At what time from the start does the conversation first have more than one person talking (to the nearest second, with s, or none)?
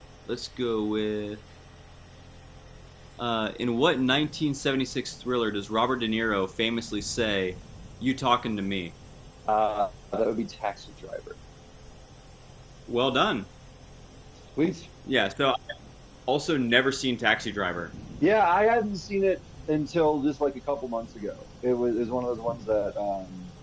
none